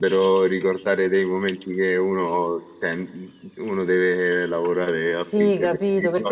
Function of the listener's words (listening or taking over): taking over